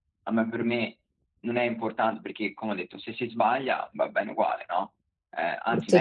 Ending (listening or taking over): listening